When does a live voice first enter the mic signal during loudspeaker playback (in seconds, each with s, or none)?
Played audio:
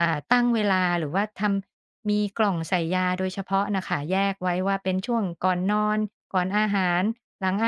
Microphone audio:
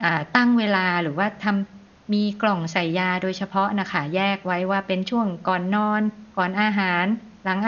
none